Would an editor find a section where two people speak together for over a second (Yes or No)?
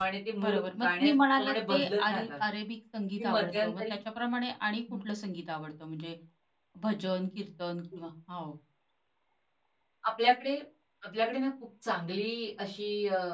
Yes